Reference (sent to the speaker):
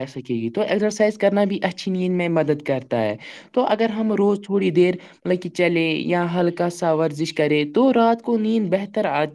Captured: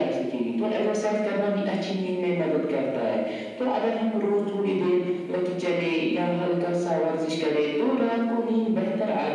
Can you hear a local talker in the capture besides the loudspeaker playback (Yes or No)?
No